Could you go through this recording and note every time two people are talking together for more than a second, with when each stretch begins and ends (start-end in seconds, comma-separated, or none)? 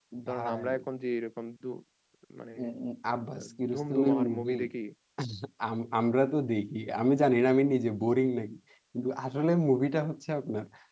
3.4-4.6